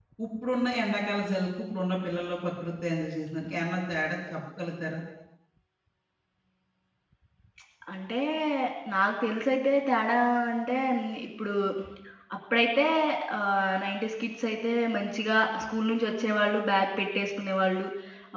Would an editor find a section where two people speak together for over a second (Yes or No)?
No